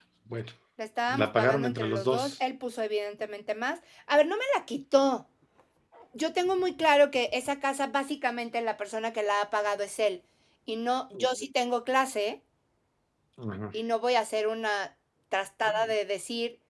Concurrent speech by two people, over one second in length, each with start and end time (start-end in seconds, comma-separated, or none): 1.1-2.3